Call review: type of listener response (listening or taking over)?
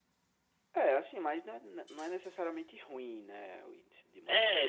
taking over